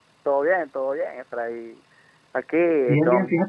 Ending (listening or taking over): taking over